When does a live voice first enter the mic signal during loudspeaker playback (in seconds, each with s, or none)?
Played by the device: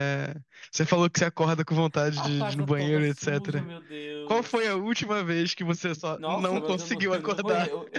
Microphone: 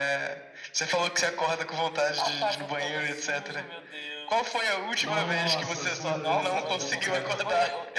5.0 s